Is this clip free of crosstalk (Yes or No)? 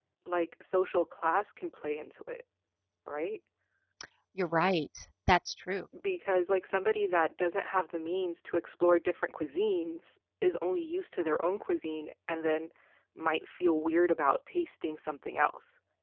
Yes